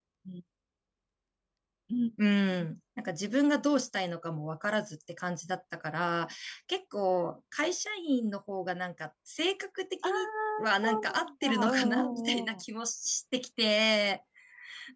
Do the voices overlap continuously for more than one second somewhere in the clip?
Yes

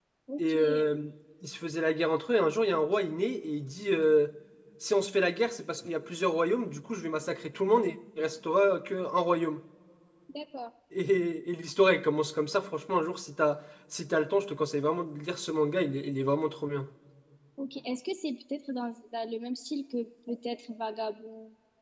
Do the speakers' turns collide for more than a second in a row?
No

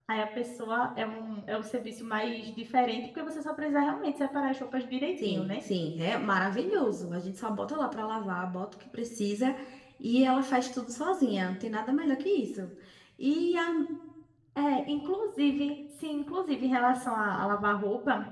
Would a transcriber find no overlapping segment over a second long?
Yes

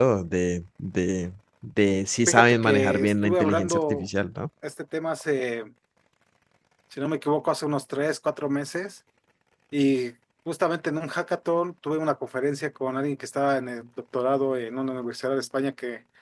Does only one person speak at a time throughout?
No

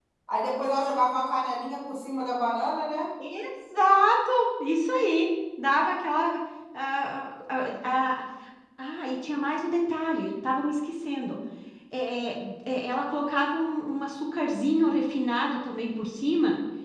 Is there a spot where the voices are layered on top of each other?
No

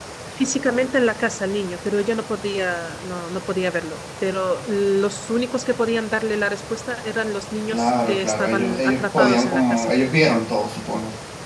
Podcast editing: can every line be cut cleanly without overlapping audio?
No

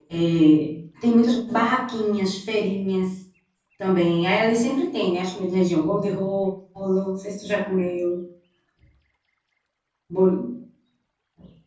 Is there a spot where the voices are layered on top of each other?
No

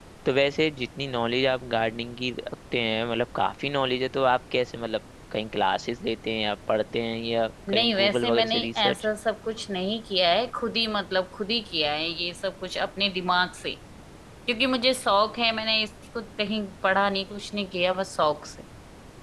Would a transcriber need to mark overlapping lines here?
Yes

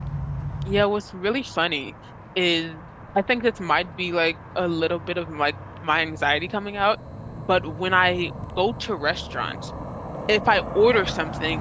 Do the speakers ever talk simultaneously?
No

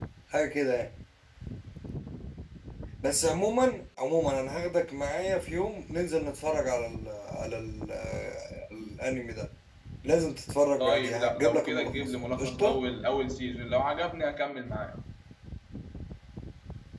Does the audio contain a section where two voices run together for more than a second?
Yes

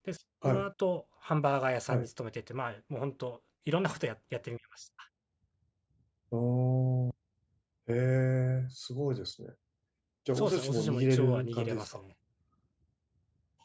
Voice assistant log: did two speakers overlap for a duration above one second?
Yes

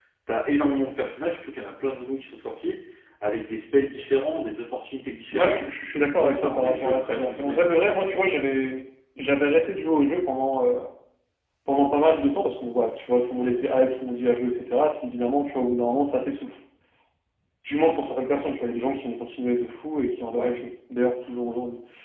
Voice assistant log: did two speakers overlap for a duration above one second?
Yes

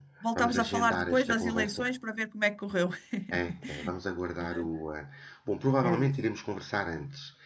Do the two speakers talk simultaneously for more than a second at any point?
Yes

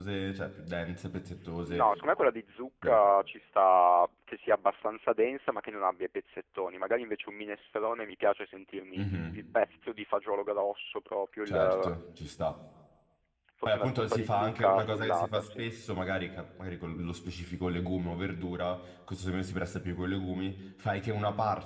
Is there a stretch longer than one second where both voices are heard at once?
Yes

